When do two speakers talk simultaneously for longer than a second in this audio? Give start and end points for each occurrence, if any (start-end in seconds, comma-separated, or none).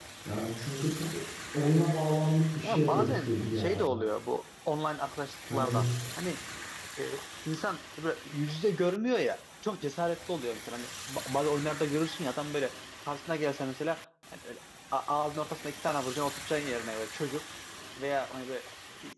2.6-3.9